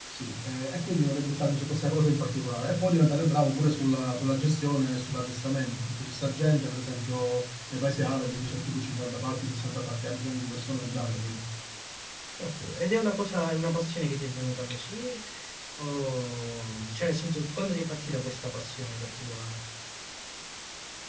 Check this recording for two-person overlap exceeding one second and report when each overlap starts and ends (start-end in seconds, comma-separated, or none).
none